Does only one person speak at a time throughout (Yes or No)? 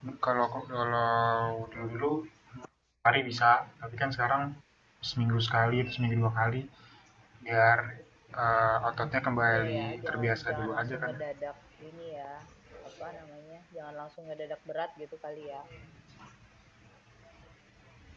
No